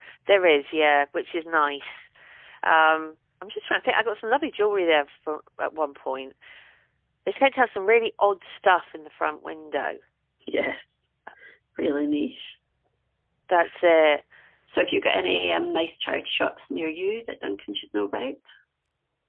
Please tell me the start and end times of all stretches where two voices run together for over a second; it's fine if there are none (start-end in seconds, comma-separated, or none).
none